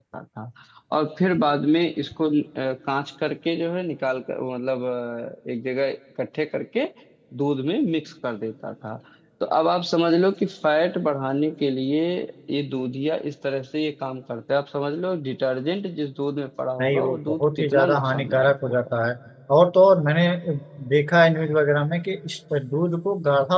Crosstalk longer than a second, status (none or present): present